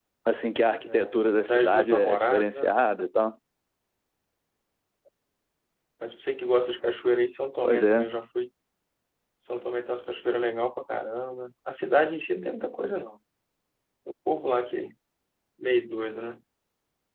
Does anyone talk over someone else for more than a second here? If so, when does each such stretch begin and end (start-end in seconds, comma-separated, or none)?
0.8-2.6